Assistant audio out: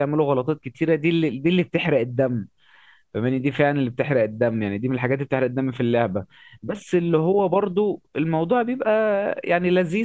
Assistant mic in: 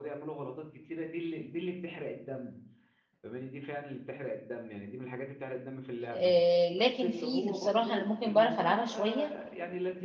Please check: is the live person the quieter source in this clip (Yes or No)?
No